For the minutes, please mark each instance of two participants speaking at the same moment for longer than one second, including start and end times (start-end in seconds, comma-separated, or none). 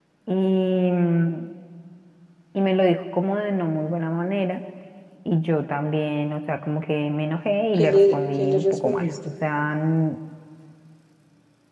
7.7-9.1